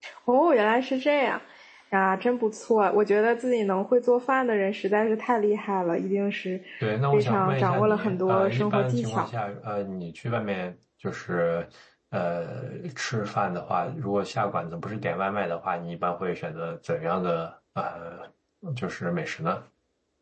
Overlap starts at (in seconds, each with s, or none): 7.1 s